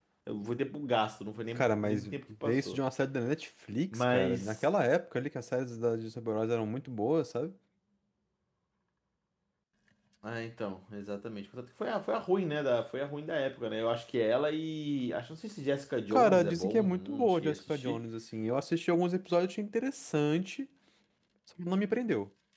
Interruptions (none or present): present